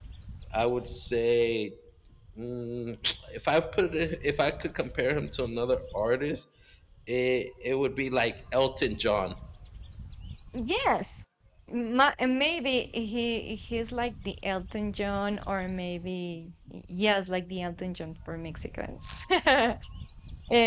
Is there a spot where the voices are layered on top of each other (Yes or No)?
No